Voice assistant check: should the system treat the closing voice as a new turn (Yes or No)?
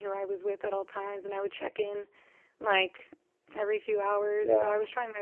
No